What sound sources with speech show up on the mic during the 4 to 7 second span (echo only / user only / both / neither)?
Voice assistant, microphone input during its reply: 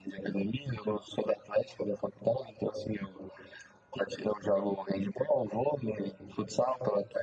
echo only